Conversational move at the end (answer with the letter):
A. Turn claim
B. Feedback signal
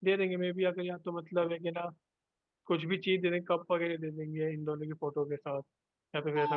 A